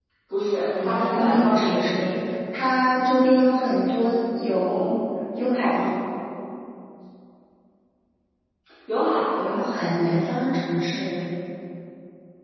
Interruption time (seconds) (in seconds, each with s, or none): 0.8 s